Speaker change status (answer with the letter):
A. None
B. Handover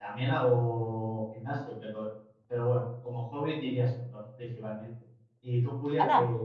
B